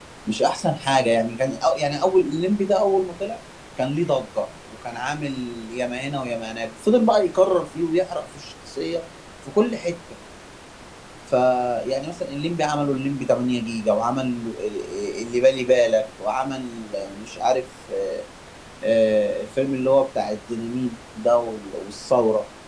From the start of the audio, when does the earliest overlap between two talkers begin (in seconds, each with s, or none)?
none